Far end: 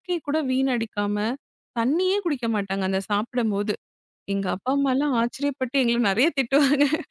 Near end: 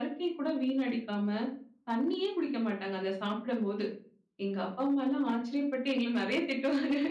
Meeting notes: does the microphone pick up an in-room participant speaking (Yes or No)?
No